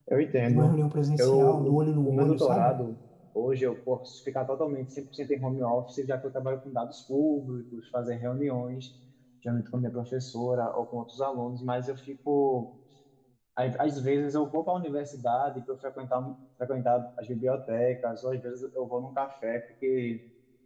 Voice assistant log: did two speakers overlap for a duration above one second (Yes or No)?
Yes